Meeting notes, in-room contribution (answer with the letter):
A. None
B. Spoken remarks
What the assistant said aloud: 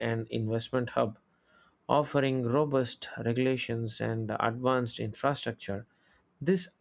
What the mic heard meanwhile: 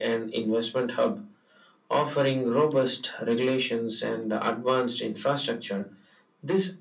A